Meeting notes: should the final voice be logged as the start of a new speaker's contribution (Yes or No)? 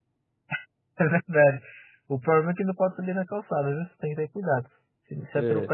No